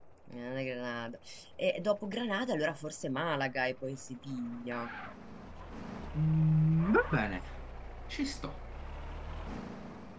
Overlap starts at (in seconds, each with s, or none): none